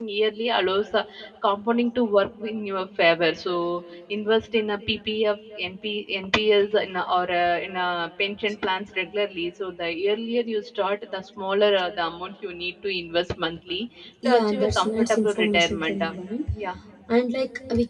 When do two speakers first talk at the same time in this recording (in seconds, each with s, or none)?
14.2 s